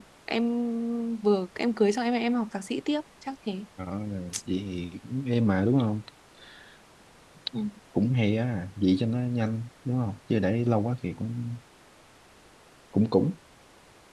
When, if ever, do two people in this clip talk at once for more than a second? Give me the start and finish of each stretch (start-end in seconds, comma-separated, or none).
none